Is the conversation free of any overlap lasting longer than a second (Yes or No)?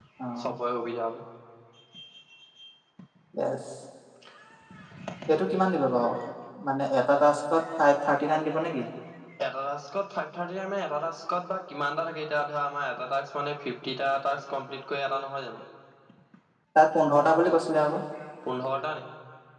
Yes